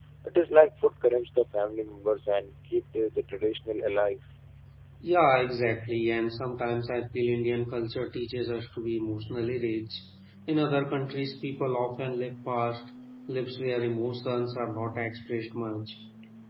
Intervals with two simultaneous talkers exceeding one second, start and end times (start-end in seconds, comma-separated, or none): none